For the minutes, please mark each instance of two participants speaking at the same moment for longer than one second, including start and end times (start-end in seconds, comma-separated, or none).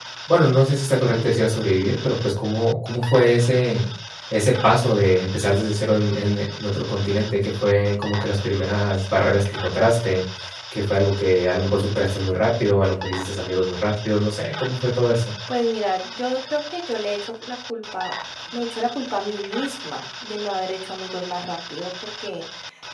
none